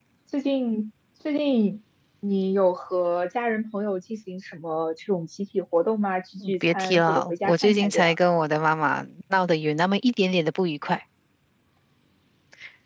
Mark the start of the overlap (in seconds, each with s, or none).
6.4 s